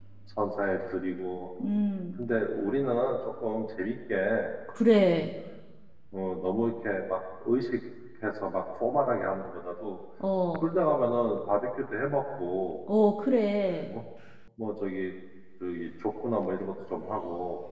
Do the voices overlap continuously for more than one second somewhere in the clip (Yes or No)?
No